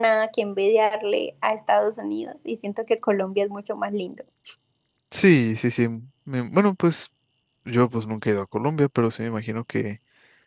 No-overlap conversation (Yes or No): Yes